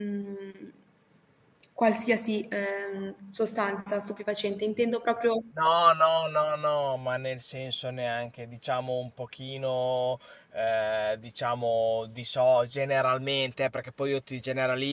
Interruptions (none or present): none